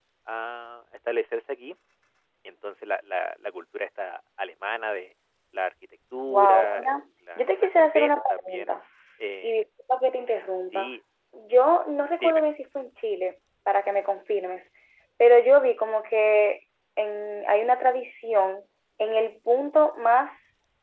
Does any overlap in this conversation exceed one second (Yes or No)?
Yes